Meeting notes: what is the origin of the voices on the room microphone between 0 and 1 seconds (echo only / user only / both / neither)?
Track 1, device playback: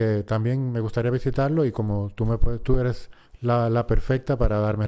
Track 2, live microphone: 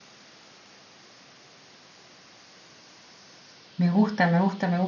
neither